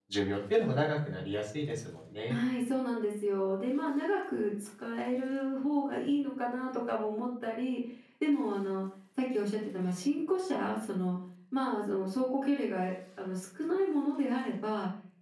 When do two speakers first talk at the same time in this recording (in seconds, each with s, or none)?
none